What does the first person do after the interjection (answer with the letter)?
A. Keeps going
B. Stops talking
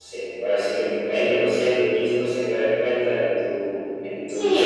B